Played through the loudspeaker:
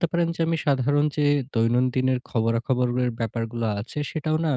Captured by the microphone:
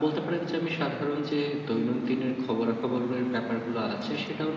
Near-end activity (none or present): none